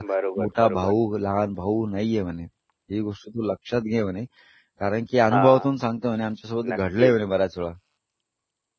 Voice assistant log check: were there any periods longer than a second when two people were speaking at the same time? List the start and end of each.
none

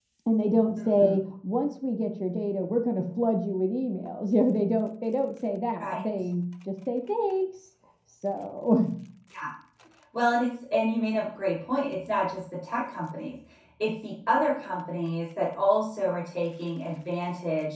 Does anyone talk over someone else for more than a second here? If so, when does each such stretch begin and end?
none

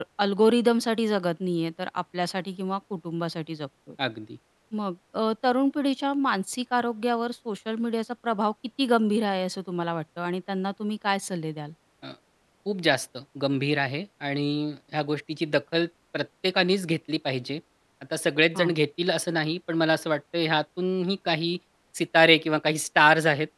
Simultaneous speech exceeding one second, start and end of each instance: none

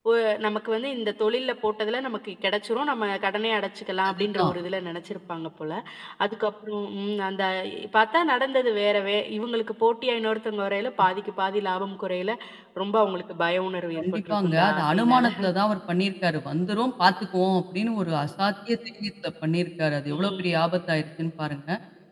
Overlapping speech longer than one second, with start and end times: 14.0-15.3

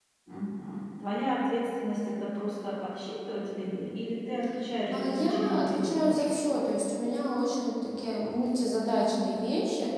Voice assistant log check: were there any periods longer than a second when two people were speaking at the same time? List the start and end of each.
4.9-6.3

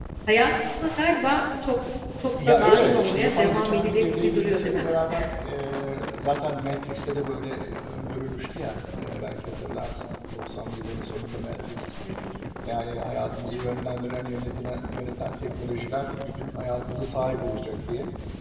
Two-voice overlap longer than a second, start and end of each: 2.5-4.8

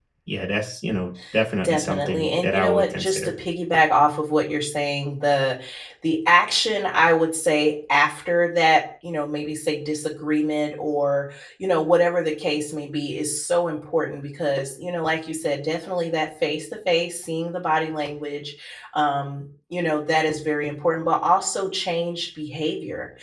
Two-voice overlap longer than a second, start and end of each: 1.6-3.3

